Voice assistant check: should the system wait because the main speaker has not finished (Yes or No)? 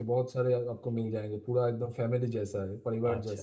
No